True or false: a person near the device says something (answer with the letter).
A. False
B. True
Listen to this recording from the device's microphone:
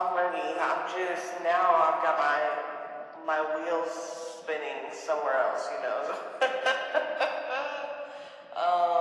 A